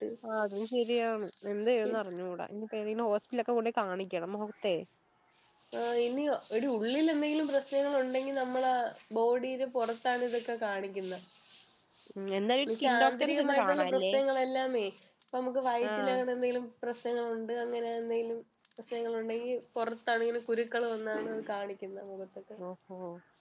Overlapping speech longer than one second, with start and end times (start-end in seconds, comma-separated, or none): 12.7-14.0